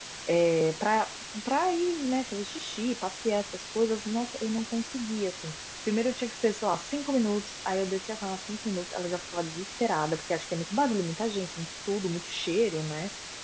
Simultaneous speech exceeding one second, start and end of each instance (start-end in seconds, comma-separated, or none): none